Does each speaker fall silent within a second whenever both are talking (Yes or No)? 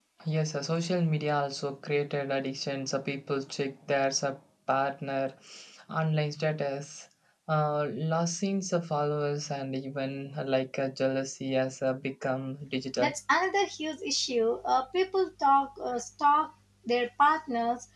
Yes